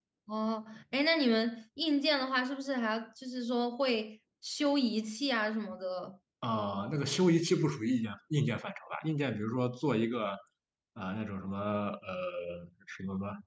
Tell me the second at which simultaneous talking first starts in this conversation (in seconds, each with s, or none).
none